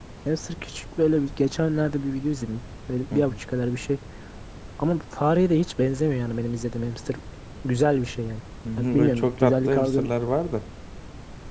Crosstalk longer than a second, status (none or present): present